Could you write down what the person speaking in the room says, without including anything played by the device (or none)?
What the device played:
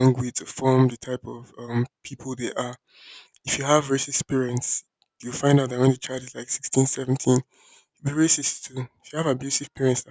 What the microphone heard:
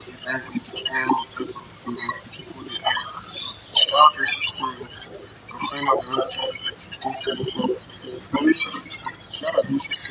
none